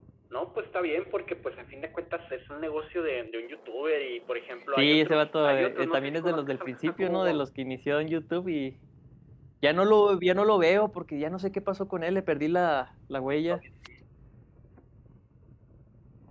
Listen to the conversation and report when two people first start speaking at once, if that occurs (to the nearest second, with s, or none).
5 s